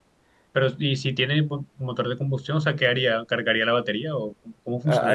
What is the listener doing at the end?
taking over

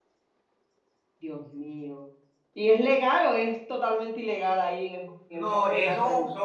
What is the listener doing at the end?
taking over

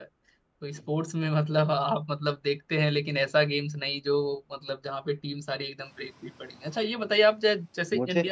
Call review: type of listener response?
listening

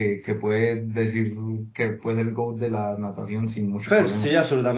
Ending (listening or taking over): taking over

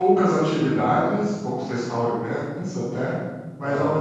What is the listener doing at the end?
listening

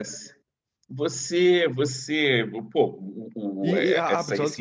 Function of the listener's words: taking over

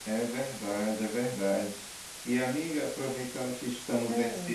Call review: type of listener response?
listening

